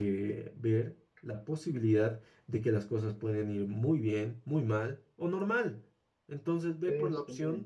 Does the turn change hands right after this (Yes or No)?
No